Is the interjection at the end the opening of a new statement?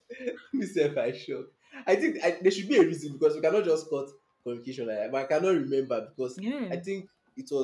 No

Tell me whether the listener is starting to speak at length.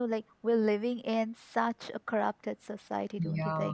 Yes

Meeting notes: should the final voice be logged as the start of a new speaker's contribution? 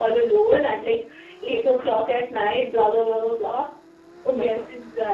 Yes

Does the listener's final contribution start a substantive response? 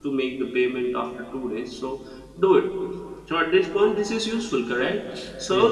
No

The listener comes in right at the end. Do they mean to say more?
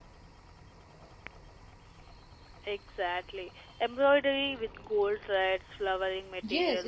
Yes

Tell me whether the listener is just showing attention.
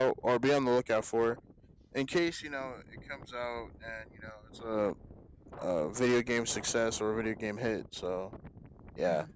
Yes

